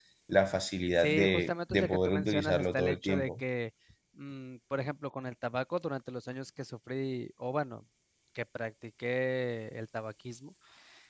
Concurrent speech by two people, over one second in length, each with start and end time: 1.0-3.4

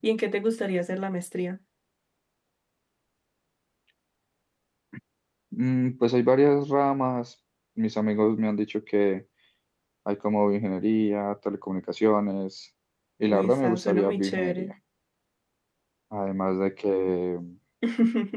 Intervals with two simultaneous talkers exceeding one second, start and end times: 13.3-14.7

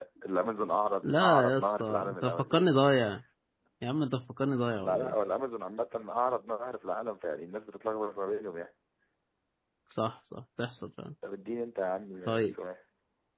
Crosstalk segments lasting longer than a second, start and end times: 1.0-2.6

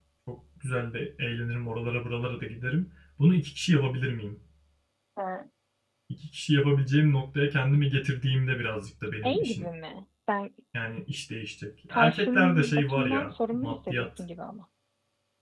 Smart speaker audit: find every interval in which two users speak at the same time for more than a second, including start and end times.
11.9-14.3

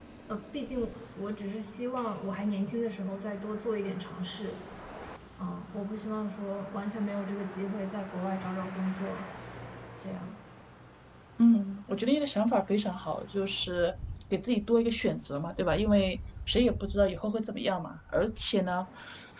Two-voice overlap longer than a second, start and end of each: none

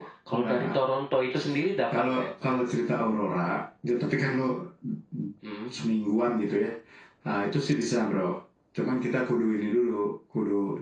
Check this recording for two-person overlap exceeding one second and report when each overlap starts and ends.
none

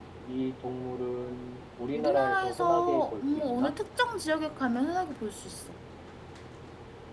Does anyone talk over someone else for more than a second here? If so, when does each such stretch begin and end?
2.0-3.7

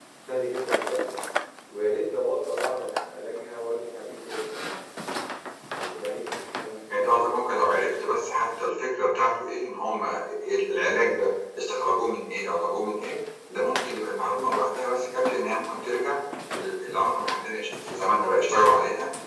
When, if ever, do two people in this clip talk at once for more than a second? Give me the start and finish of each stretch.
none

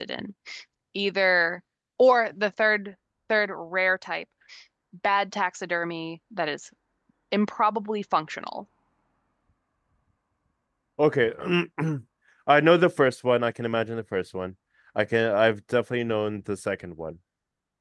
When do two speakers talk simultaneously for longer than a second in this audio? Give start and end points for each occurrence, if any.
none

